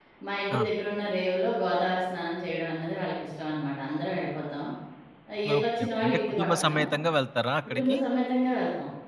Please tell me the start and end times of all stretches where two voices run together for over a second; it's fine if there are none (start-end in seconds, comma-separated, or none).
5.6-6.8